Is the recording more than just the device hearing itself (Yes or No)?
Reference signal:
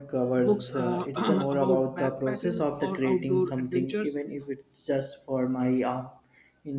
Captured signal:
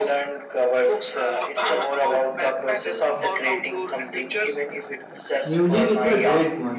Yes